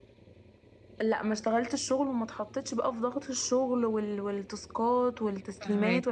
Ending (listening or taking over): listening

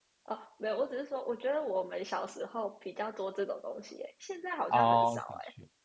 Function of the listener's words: taking over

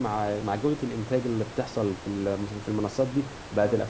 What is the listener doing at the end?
listening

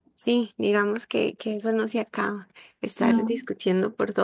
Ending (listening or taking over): listening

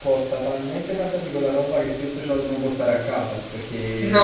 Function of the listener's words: listening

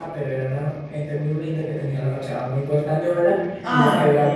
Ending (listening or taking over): listening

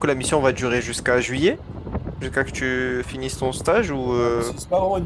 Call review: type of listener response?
taking over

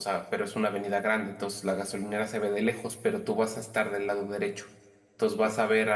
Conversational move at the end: listening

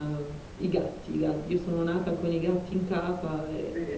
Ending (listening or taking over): taking over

